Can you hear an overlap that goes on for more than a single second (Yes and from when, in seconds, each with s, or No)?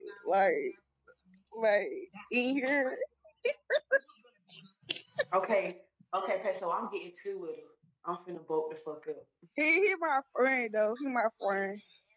No